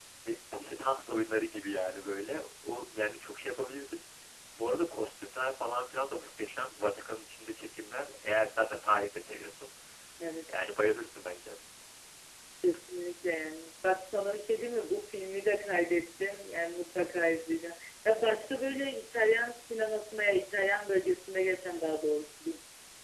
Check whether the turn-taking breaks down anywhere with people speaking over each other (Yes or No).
No